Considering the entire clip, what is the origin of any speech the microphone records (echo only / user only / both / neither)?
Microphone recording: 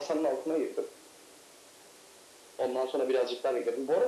echo only